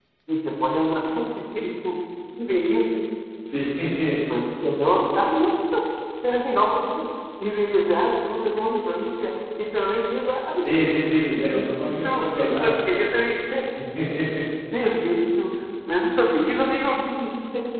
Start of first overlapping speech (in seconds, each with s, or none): 11.5 s